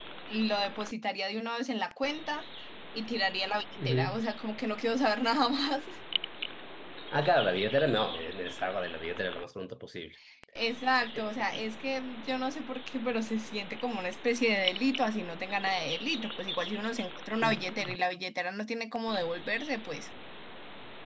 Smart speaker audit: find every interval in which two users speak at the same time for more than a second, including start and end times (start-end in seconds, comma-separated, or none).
none